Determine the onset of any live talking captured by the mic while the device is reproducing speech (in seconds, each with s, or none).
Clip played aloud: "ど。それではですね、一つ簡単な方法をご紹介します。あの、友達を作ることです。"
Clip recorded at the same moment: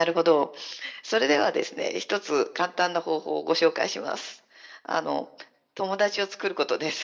none